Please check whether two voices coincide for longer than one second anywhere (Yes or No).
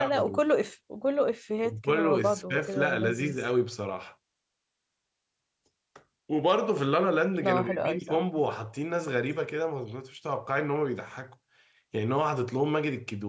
Yes